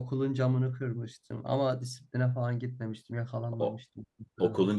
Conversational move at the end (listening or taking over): taking over